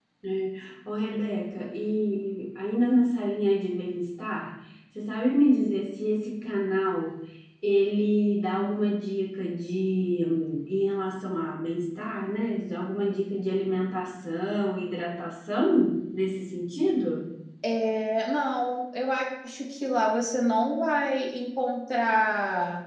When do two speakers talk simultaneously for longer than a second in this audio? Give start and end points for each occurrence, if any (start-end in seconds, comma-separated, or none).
none